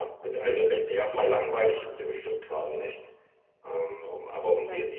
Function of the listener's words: listening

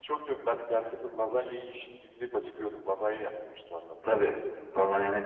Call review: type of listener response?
taking over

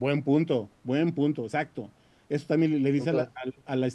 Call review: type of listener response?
listening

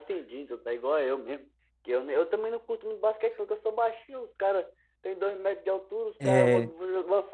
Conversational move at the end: listening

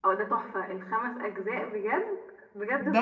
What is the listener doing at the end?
taking over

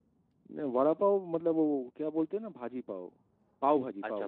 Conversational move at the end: taking over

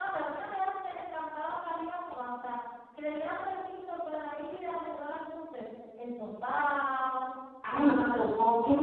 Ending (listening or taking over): taking over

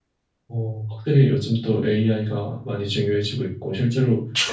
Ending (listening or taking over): listening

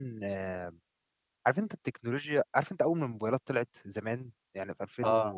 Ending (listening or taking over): listening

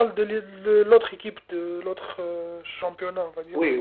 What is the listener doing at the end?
taking over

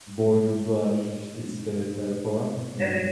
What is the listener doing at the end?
taking over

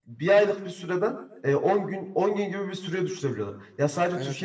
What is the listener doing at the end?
listening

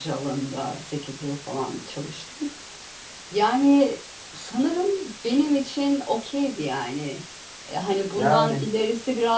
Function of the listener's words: listening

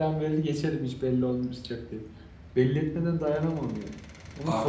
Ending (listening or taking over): listening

